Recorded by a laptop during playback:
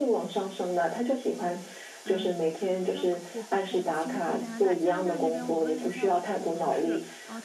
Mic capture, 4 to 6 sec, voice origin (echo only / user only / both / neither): both